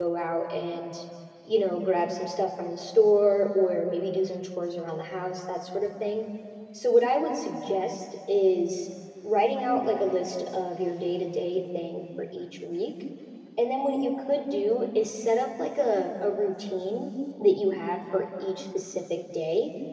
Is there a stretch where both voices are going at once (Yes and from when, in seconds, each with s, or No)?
No